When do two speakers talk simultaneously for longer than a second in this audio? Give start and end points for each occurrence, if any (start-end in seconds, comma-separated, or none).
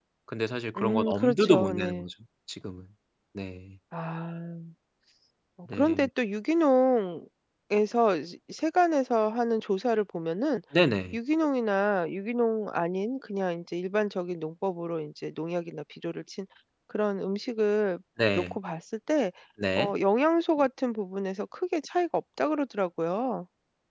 0.8-2.1